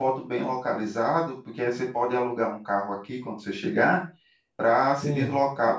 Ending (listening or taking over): listening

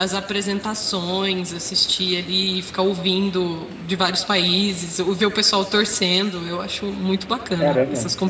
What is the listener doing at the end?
taking over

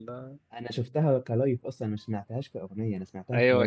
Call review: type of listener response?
taking over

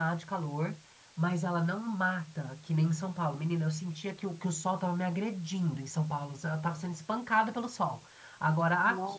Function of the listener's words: listening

